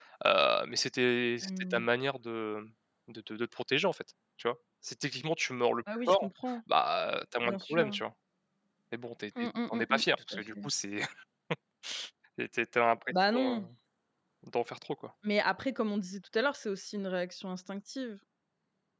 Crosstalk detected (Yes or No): Yes